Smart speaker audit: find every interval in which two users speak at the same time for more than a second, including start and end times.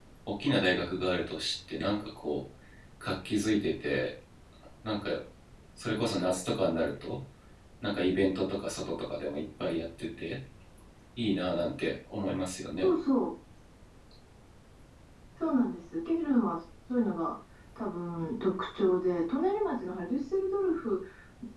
none

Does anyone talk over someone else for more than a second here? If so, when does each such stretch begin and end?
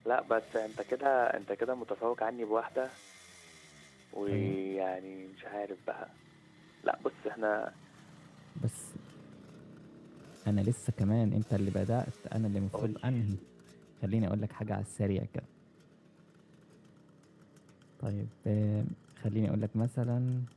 none

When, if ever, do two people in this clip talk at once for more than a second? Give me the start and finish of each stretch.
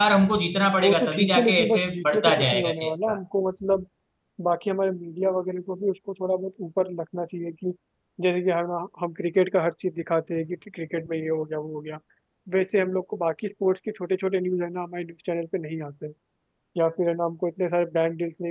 0.8-3.2

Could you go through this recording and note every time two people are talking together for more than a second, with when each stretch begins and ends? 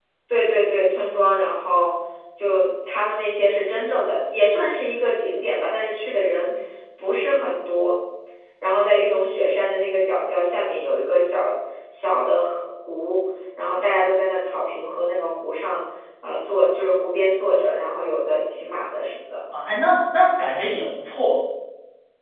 none

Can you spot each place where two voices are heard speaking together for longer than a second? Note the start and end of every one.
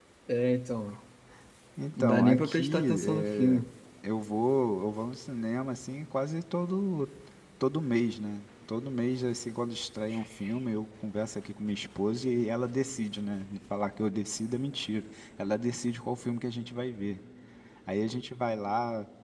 2.0-3.6

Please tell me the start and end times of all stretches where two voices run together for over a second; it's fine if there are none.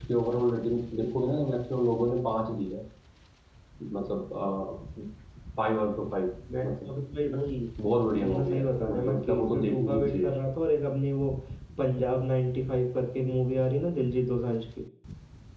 8.2-10.3

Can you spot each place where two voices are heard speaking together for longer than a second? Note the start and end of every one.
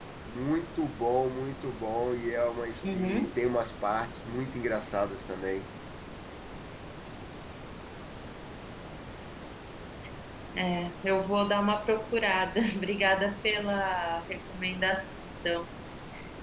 none

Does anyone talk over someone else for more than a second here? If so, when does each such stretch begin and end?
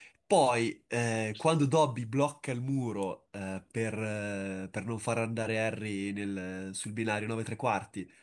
none

